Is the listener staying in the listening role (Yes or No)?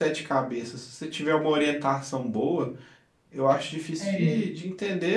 Yes